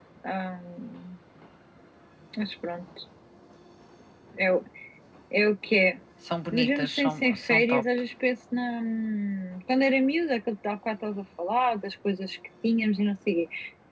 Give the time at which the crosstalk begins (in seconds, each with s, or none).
6.5 s